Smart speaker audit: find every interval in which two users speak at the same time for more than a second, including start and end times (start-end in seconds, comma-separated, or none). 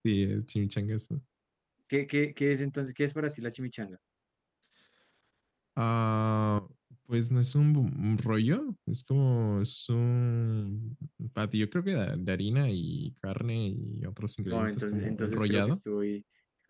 14.4-15.7